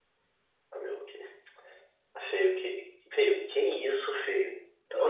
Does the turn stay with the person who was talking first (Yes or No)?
No